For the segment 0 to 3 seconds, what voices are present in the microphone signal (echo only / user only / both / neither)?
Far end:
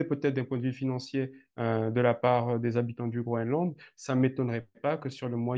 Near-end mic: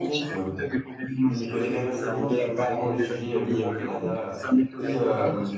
both